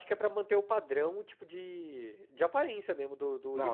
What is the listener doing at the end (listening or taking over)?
taking over